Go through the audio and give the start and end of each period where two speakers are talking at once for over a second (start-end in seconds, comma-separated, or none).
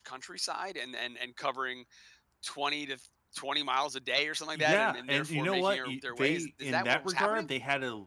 4.5-7.5